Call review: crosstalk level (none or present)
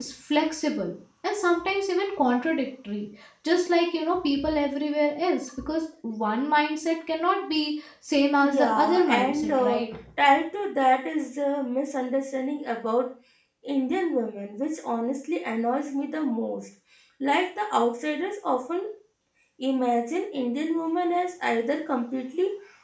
present